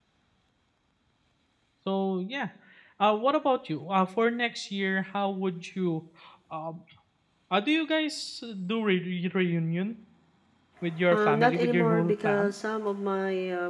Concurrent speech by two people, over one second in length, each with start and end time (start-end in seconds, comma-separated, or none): 11.1-12.5